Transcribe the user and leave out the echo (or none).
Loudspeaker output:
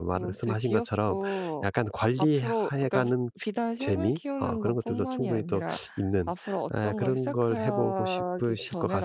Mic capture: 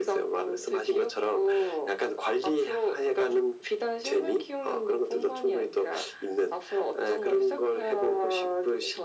none